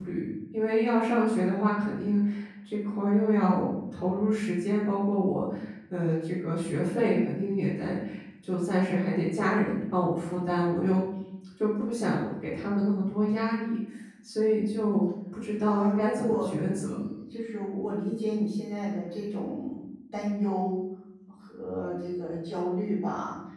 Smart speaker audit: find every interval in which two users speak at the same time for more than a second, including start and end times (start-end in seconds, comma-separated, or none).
15.6-16.9